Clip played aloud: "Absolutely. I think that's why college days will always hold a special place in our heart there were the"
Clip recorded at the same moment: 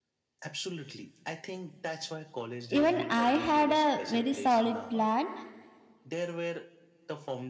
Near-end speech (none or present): present